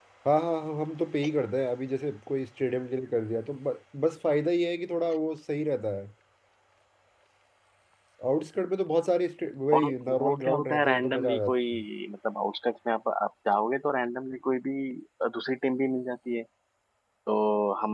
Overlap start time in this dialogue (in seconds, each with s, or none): 9.7 s